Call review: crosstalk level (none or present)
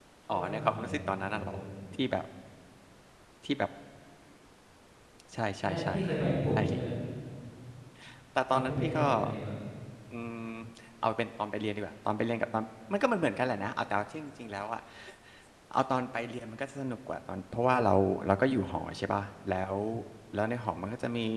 present